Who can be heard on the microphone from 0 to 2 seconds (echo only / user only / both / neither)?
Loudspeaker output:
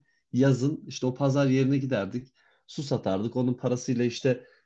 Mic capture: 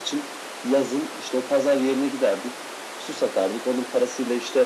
echo only